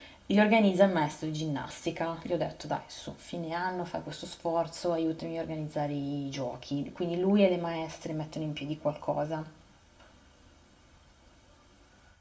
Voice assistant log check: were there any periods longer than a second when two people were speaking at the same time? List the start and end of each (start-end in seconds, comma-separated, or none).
none